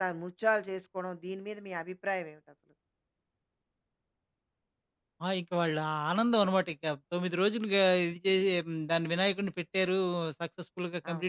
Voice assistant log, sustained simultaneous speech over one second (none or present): none